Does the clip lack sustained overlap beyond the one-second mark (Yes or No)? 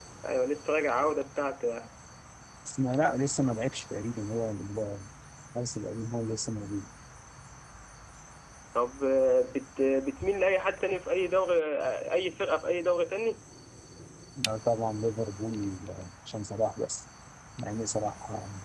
Yes